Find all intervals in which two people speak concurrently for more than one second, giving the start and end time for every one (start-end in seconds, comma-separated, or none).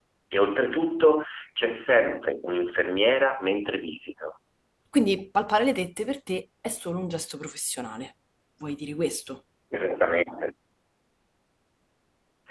none